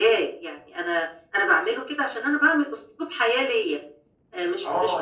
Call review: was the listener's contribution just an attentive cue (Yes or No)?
No